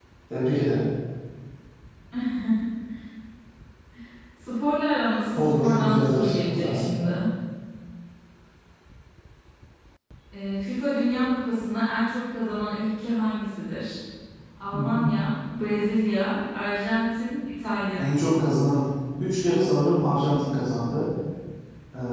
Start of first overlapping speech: 5.3 s

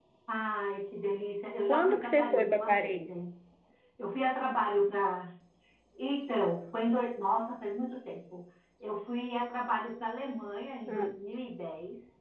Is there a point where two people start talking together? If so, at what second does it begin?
1.7 s

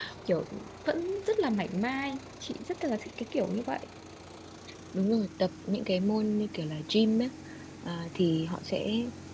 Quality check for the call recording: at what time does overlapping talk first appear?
none

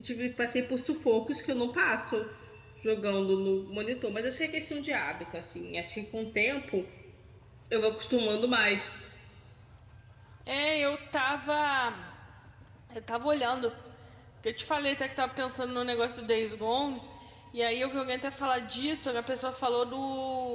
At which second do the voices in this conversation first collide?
none

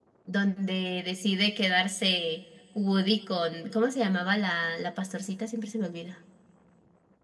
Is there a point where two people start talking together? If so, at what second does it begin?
none

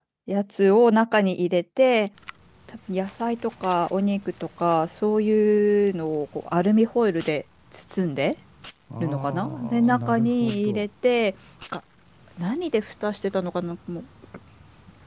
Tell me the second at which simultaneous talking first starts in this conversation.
9.0 s

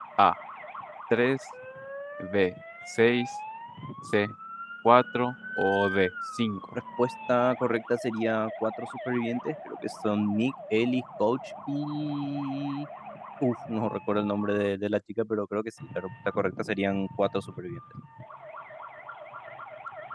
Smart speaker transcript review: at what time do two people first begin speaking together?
none

